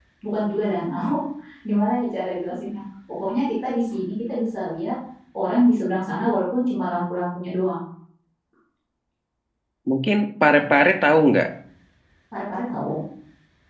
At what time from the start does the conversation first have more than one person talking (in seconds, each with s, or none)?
none